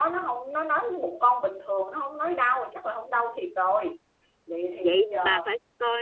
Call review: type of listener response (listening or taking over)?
taking over